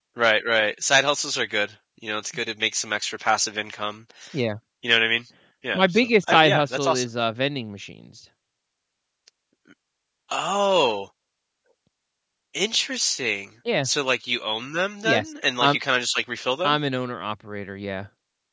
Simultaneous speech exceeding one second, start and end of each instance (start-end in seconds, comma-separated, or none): 5.7-7.0